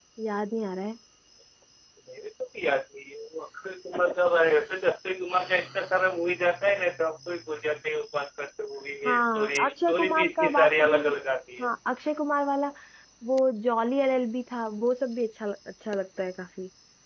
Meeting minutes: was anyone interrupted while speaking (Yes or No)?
Yes